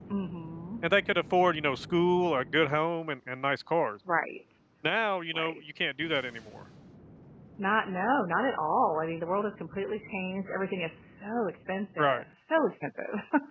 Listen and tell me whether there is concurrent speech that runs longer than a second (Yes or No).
No